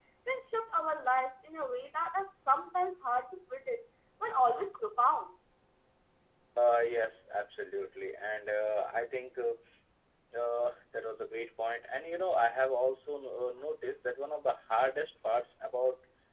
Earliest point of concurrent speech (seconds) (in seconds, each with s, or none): none